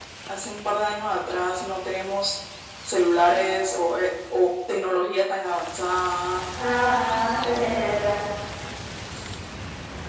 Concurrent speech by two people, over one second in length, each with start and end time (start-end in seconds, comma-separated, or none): none